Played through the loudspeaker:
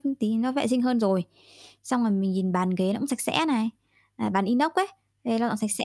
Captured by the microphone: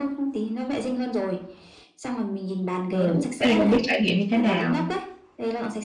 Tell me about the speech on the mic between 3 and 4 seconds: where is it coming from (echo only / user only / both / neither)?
both